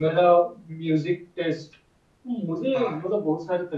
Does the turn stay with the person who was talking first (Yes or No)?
Yes